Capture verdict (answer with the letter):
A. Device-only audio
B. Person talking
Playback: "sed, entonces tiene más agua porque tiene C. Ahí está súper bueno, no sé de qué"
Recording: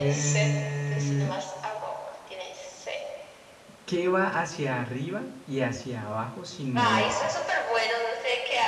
B